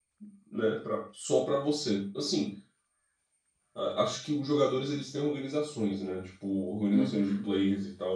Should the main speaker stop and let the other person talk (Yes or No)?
No